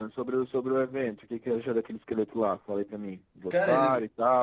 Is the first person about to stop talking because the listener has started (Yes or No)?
No